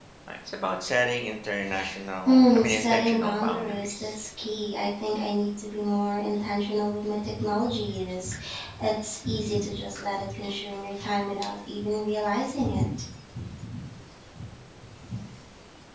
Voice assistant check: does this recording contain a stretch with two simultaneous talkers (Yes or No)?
Yes